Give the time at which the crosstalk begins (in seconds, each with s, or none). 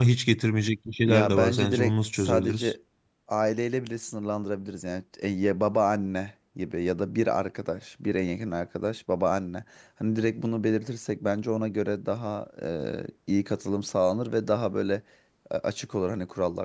1.1 s